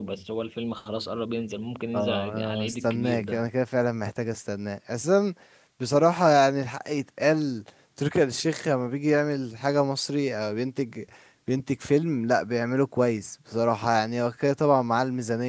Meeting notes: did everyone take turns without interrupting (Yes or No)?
No